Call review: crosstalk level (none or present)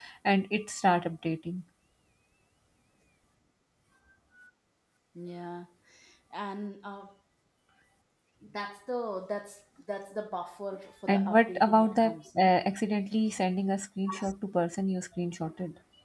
present